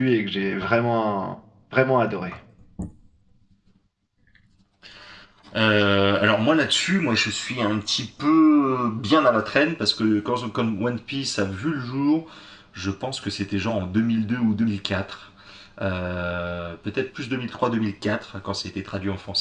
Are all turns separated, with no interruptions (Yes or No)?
Yes